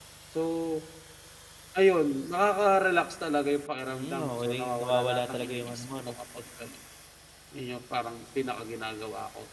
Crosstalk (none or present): present